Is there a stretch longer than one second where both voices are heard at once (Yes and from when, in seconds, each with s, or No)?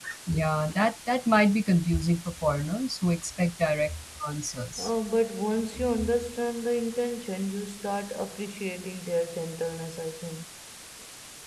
No